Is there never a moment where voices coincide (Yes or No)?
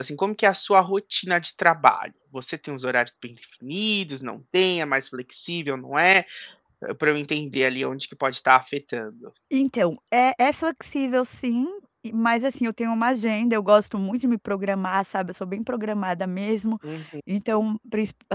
Yes